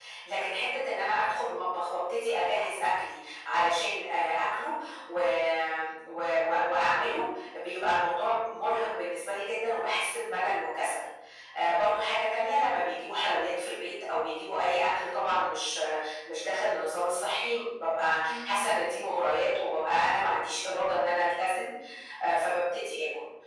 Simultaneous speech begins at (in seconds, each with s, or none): 18.2 s